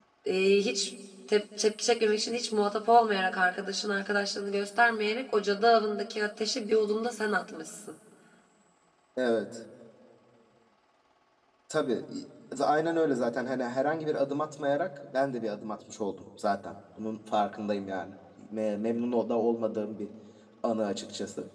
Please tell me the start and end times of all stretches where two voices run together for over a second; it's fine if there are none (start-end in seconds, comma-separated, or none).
none